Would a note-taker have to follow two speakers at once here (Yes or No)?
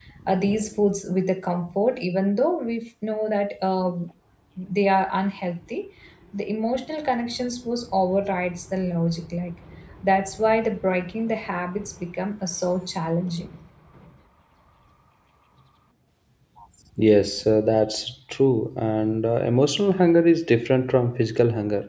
No